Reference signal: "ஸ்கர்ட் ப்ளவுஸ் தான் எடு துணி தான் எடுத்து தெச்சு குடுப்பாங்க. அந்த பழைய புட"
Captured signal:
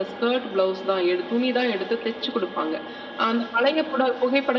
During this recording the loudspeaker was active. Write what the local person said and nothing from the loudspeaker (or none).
none